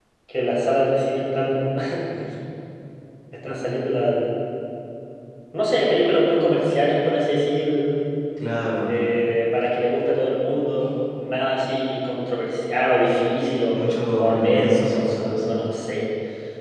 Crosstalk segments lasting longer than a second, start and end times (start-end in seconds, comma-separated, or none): 14.2-15.6